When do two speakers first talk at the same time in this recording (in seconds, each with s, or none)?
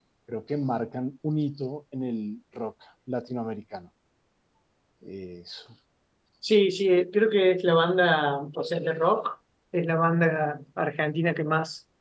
none